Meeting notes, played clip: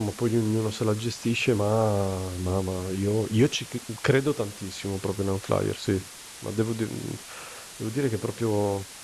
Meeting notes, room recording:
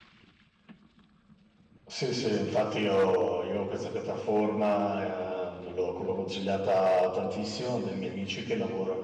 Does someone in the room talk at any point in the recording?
Yes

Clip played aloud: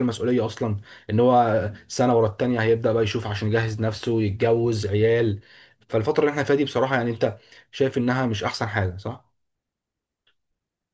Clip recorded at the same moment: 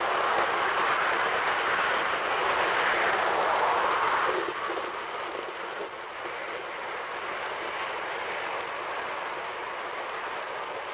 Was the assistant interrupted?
No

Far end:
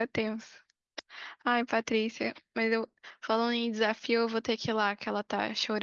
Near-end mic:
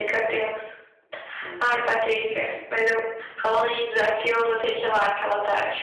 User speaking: Yes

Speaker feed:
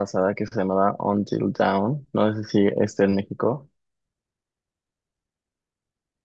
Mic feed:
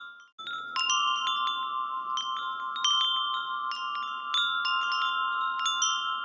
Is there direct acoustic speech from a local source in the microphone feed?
No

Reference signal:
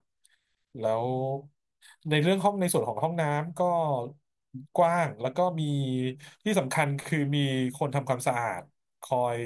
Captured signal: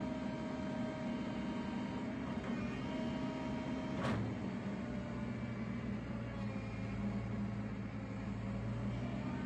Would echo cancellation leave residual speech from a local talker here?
No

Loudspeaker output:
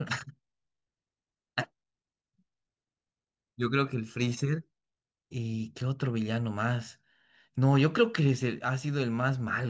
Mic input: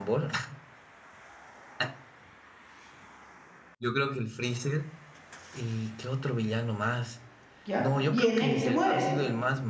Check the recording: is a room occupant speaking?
Yes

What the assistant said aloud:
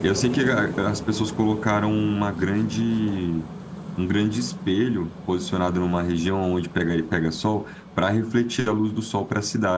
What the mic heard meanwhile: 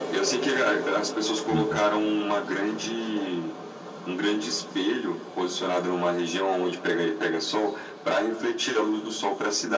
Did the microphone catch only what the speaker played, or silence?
No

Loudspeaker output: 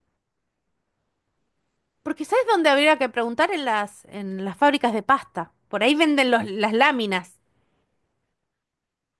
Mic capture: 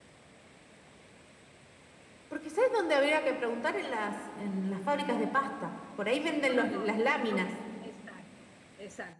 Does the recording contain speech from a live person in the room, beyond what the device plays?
Yes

